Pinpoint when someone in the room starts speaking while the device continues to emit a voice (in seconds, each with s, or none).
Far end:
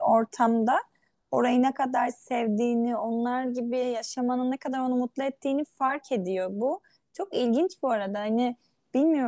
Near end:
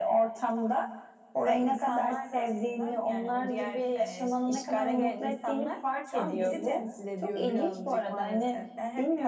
1.4 s